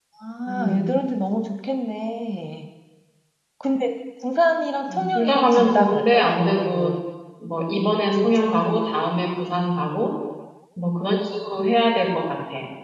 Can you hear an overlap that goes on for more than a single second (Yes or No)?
Yes